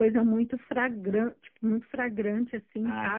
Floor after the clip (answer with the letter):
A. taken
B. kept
A